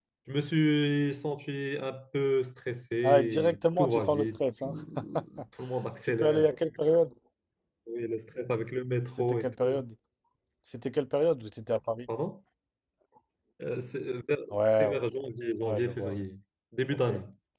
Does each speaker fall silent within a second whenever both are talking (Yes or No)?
No